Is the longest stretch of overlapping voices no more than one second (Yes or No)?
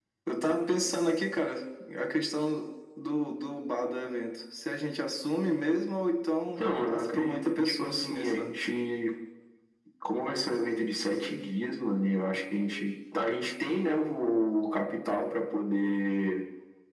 No